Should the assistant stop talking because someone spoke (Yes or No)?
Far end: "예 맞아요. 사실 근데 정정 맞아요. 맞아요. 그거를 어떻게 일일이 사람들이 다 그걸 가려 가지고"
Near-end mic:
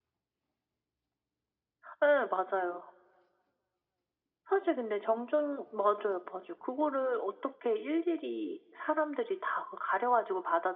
No